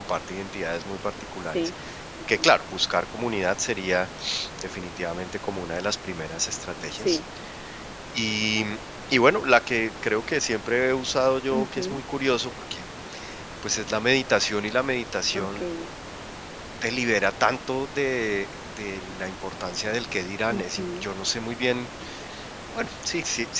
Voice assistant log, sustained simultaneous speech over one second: none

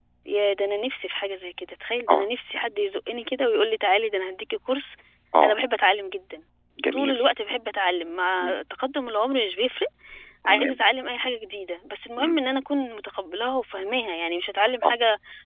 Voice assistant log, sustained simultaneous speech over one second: none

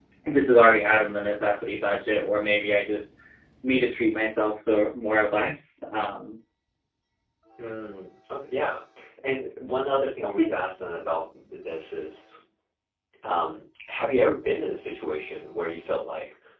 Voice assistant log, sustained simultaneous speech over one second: none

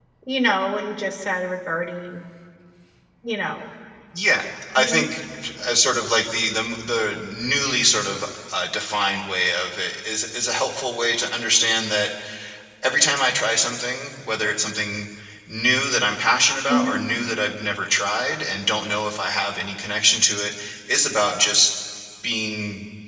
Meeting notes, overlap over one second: none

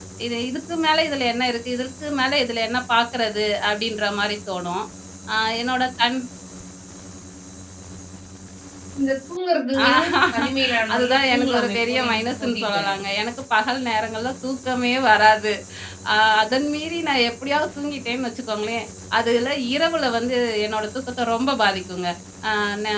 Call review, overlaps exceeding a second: present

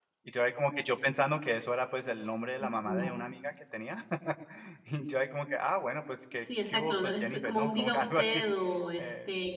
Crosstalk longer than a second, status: present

